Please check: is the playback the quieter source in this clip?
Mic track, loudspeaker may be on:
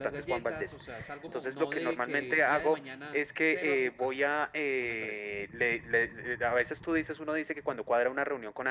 No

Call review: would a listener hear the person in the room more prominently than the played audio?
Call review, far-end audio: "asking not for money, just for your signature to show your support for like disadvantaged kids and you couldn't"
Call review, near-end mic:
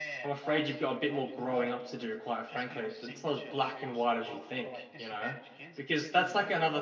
Yes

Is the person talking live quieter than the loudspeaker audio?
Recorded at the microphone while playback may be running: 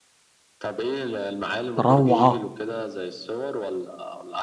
No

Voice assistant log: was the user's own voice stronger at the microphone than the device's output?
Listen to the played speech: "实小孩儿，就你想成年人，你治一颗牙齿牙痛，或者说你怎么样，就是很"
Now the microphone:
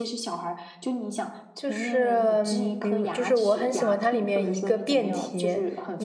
Yes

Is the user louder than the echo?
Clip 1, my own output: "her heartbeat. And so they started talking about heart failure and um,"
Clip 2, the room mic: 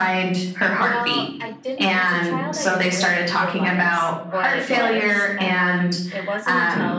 No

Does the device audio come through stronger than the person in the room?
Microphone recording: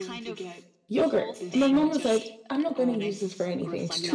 No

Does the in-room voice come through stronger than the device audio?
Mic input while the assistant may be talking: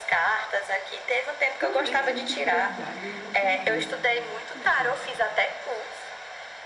No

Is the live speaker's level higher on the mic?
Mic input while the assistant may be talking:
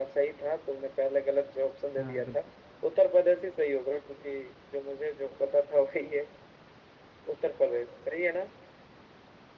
No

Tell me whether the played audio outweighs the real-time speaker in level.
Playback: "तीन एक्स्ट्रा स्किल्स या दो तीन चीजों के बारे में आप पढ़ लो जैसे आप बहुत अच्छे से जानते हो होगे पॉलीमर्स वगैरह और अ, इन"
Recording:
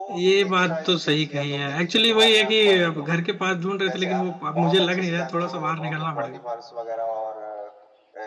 No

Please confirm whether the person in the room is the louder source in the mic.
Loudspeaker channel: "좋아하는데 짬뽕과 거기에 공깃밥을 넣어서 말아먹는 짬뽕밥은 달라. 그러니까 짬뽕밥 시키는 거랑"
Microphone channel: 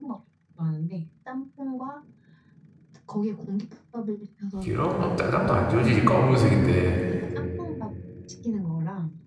Yes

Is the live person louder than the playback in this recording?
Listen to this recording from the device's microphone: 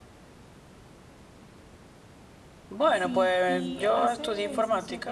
No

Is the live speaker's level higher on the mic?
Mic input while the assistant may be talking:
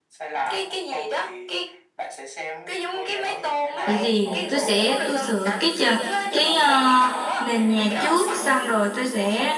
Yes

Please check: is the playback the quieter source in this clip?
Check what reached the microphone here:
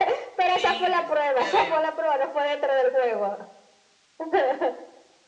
No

